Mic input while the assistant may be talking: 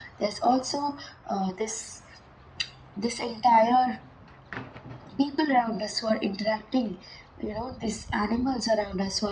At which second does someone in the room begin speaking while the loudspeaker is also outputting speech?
none

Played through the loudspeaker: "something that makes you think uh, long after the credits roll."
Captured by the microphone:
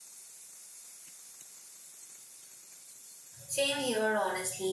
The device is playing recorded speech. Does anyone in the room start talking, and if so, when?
3 s

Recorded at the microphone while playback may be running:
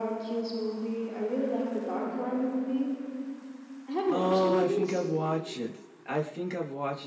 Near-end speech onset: 4 s

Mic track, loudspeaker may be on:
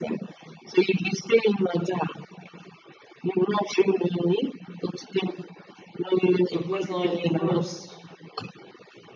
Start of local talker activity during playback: 6 s

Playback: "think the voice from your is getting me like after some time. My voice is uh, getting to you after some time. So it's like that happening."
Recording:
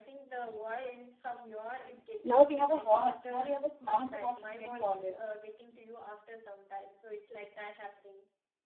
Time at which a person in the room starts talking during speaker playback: 2 s

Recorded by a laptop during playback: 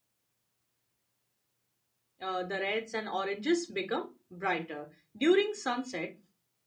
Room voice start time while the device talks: 2 s

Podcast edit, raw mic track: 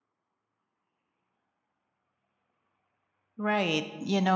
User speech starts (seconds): 3 s

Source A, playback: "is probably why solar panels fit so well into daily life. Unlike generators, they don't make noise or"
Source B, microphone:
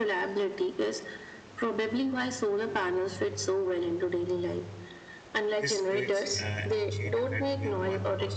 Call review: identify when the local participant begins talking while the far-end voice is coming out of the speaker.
6 s

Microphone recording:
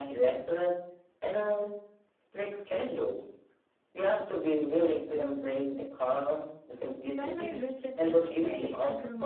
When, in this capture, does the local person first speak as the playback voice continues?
7 s

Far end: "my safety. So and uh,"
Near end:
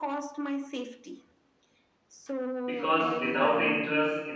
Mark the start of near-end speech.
3 s

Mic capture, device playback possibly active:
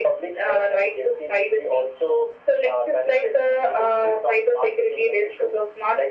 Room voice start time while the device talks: none

